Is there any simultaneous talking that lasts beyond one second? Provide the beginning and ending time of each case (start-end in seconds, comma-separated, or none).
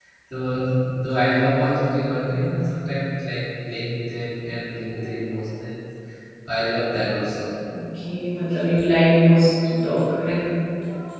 none